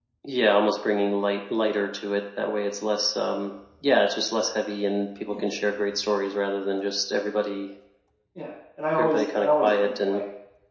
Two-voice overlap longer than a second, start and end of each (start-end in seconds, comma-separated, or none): 9.0-10.2